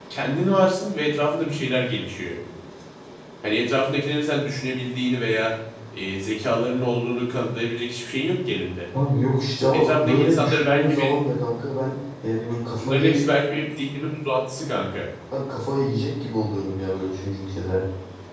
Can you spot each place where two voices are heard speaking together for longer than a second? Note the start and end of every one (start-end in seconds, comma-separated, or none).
9.7-11.1